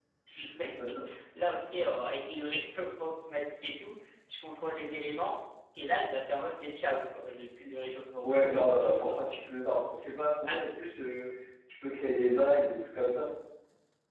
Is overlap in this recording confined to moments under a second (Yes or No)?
Yes